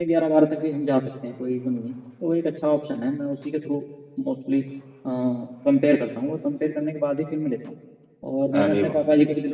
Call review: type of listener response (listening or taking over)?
listening